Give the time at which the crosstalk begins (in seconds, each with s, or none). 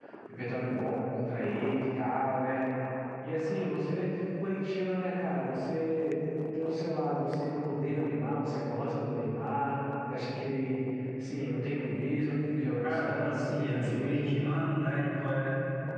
12.8 s